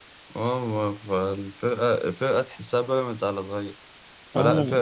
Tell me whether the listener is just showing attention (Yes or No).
Yes